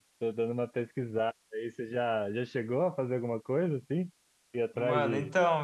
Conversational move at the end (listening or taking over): taking over